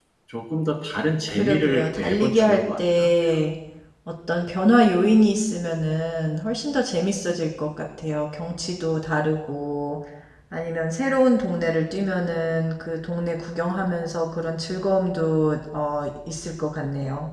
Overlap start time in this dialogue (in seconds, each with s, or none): 1.3 s